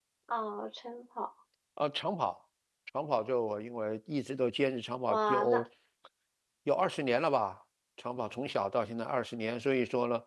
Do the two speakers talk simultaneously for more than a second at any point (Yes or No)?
No